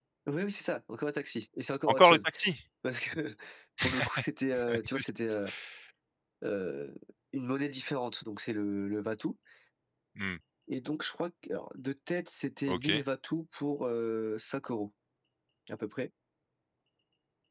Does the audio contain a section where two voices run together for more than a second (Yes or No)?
No